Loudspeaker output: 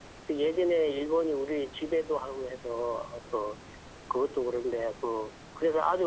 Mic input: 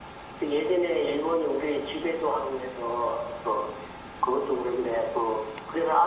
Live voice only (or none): none